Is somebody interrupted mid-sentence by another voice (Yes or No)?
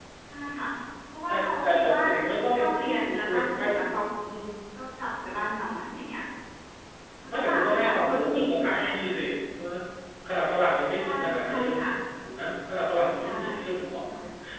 Yes